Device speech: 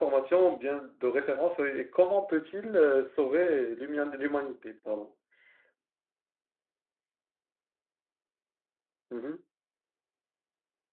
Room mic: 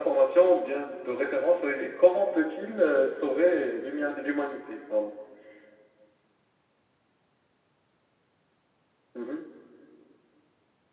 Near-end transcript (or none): none